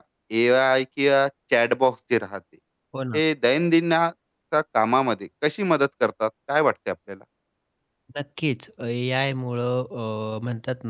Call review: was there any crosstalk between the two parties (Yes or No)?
No